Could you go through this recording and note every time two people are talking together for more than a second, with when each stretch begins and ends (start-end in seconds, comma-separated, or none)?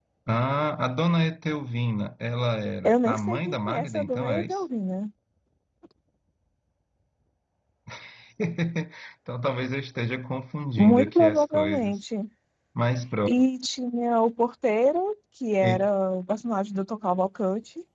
2.8-4.6, 10.8-12.0